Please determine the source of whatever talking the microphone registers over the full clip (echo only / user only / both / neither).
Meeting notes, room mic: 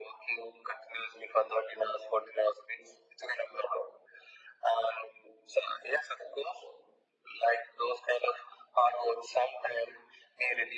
echo only